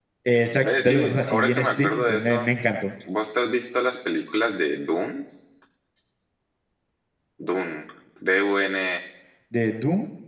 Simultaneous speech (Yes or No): Yes